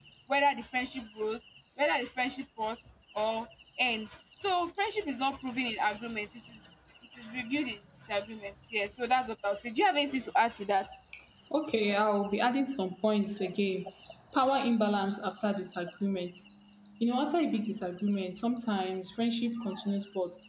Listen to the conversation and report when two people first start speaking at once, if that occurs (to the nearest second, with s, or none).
none